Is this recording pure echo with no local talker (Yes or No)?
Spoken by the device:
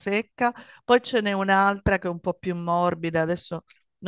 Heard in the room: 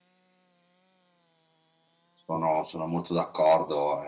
No